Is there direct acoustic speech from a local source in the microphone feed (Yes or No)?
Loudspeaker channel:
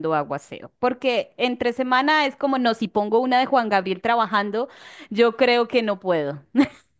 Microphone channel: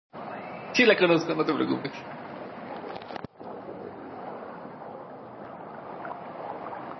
Yes